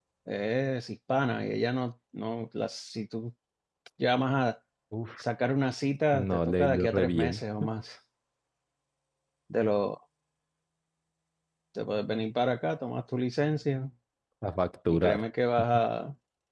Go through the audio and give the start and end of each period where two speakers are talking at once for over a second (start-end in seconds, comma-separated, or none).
6.1-7.3